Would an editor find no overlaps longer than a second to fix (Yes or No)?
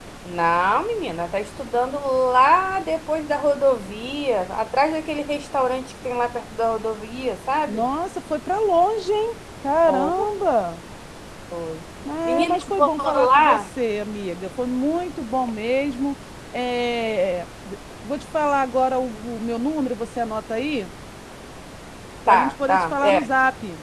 No